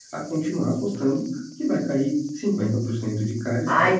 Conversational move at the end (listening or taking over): taking over